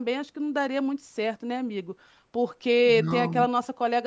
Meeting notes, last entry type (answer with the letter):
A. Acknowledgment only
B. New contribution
A